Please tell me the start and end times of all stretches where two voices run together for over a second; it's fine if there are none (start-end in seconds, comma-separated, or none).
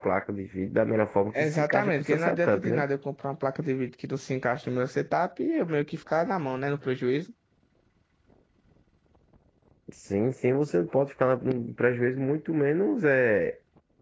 1.4-2.8